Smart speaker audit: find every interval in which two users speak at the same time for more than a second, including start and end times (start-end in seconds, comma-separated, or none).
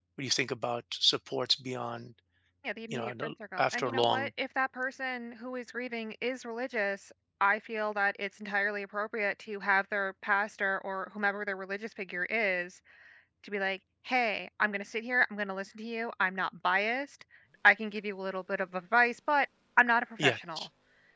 2.9-4.3